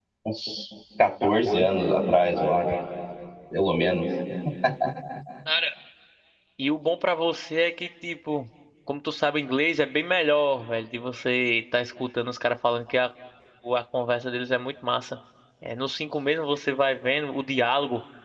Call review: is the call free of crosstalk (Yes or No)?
Yes